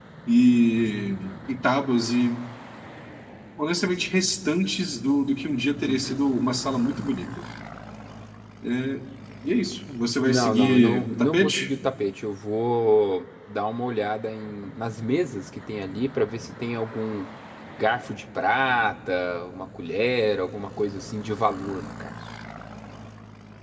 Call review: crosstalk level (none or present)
present